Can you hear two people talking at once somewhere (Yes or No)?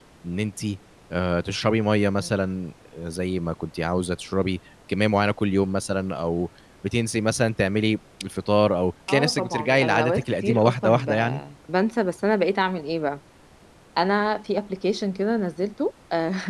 Yes